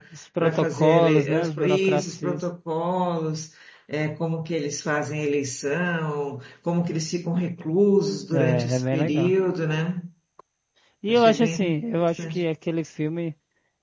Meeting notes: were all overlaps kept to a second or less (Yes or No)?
No